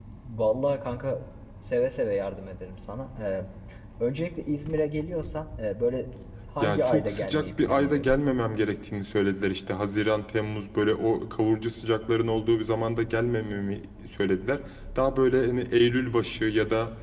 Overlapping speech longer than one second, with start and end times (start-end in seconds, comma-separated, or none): 6.6-8.1